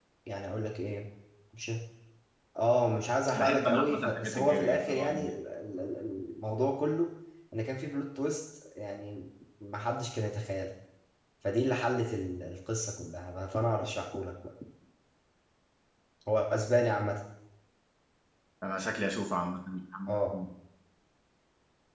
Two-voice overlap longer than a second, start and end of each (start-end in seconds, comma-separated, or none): 3.4-5.3